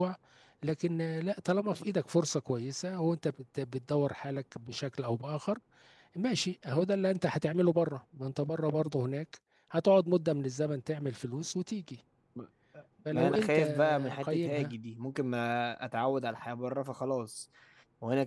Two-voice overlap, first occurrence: 13.1 s

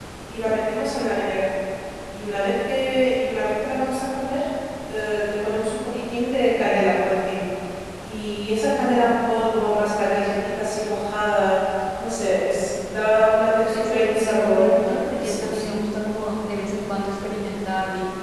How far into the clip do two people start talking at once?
13.5 s

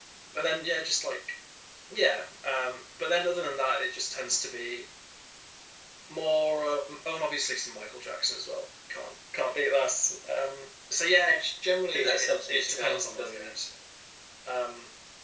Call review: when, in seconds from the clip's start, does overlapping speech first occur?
11.9 s

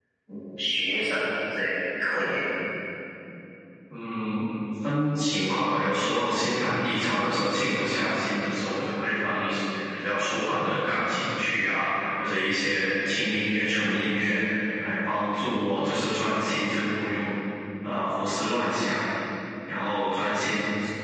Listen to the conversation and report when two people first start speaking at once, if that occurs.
none

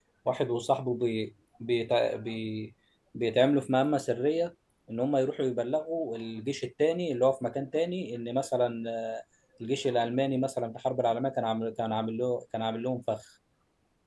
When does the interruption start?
none

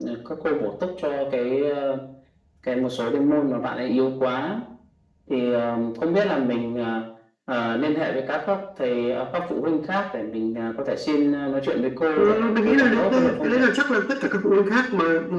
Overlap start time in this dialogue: 12.2 s

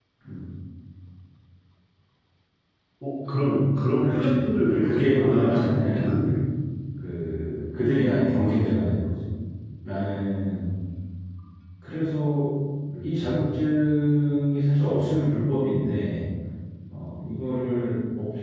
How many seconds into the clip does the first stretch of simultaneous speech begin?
4.0 s

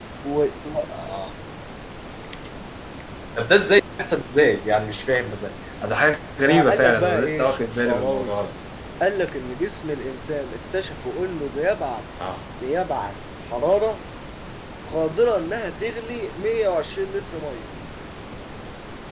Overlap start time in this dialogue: 6.4 s

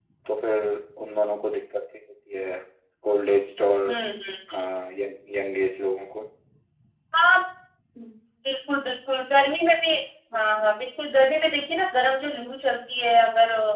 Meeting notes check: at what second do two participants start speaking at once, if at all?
none

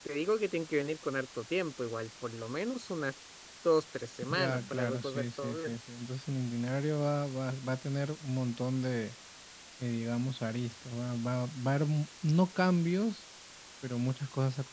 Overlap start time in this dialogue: 4.3 s

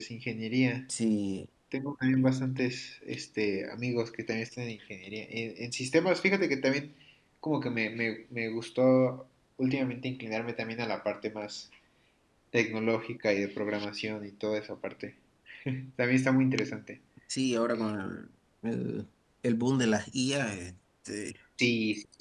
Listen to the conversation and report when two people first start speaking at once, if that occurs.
none

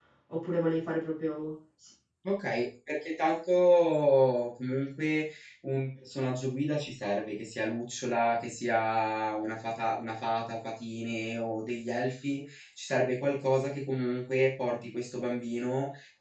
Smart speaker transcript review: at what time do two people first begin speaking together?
none

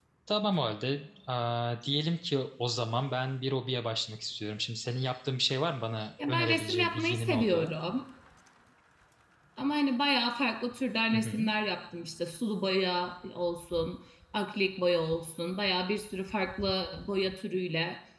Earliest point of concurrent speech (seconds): 6.3 s

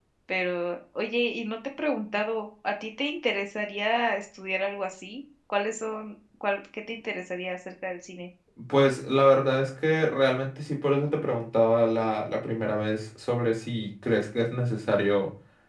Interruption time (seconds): none

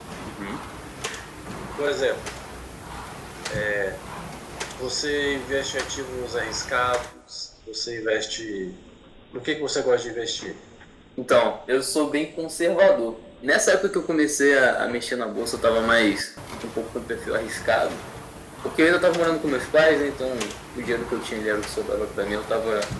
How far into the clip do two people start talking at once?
none

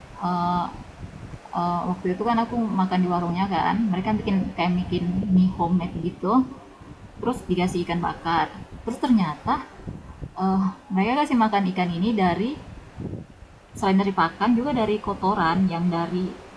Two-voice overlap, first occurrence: none

